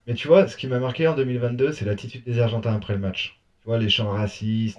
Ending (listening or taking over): listening